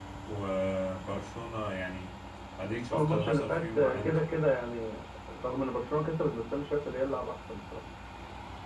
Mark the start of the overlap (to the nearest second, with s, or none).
3 s